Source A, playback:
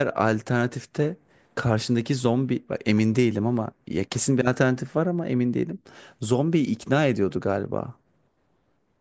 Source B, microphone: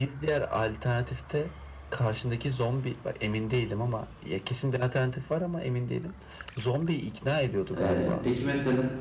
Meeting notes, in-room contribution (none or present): present